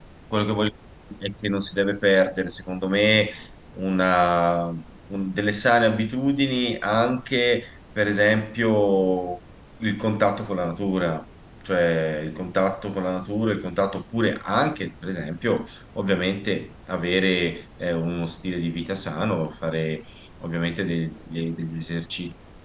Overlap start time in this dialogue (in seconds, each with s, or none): none